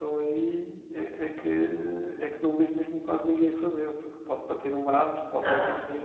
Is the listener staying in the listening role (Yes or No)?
No